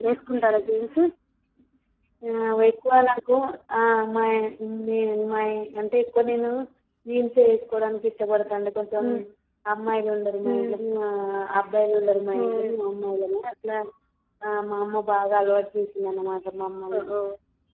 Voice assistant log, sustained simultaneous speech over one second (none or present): none